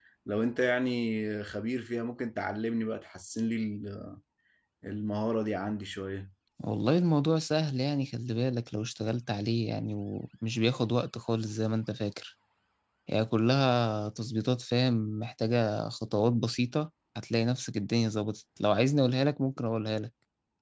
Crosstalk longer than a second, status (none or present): none